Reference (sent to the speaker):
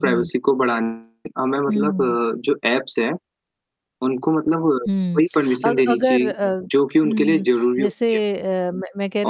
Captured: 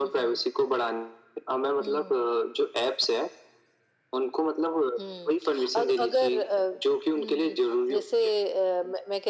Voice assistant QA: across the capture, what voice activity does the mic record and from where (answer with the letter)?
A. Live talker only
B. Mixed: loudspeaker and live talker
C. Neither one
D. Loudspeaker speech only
D